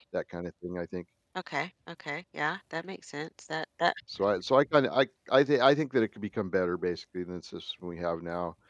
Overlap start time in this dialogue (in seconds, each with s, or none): none